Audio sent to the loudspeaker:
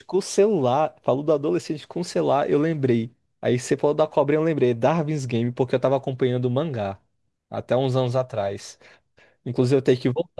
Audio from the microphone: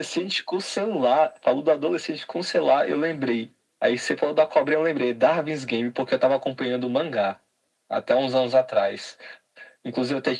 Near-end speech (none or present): none